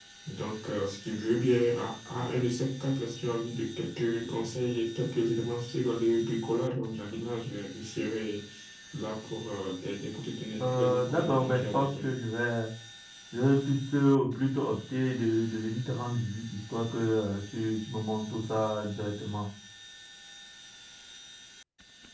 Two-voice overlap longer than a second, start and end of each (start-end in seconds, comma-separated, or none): 10.6-12.0